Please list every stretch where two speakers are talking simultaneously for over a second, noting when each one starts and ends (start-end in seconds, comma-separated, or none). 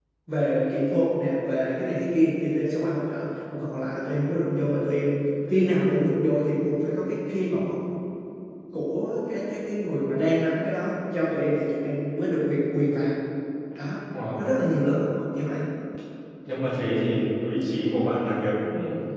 none